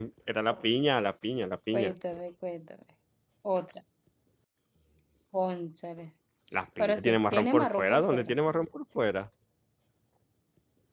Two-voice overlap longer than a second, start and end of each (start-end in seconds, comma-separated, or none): 6.8-8.3